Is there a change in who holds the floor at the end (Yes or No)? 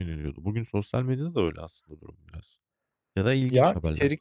Yes